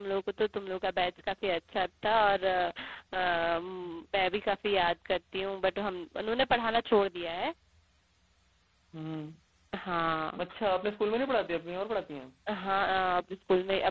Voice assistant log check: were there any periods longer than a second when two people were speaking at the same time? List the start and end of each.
none

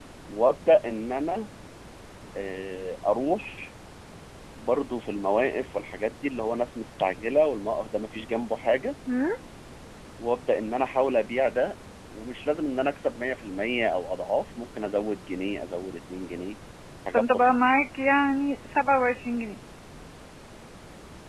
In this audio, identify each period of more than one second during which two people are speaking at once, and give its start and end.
none

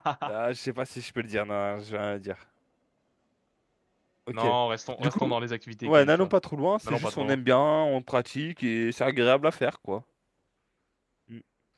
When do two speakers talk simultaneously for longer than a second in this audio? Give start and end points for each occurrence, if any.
none

